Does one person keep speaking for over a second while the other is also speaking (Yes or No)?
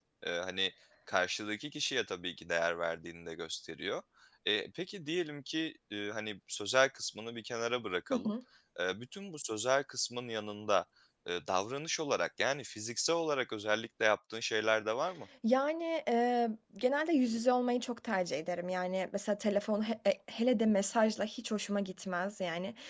No